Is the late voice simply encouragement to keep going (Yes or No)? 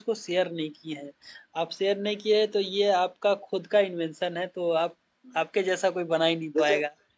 No